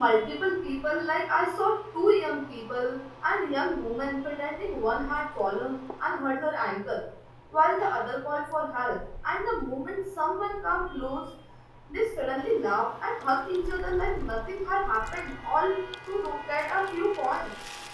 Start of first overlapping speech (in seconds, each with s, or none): none